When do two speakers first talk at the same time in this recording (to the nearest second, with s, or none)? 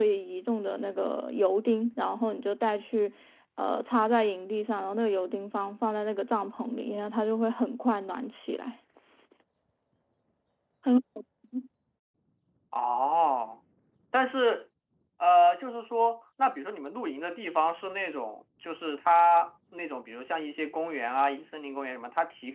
none